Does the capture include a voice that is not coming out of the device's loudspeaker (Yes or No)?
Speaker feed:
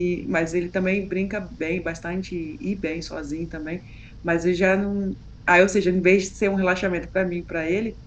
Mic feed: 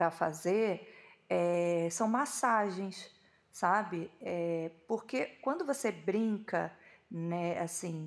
Yes